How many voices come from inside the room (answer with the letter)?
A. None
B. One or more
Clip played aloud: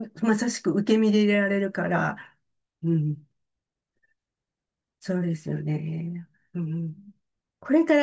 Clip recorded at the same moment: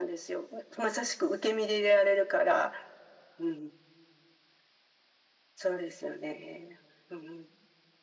A